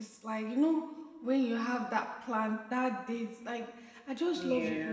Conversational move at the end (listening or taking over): listening